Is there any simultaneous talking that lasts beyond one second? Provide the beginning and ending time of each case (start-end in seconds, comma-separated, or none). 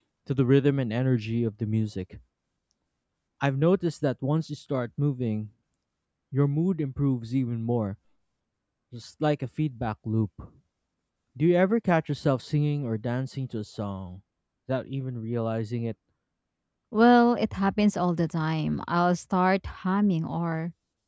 none